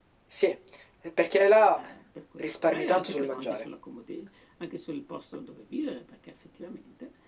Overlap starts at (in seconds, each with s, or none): 2.4 s